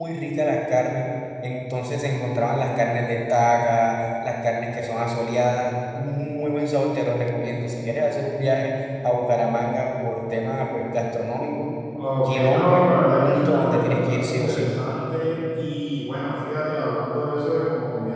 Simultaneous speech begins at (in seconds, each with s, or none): 12.2 s